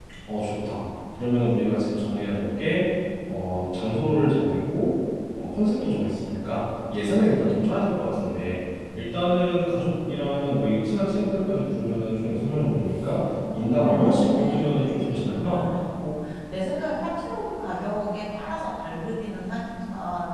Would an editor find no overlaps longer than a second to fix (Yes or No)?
No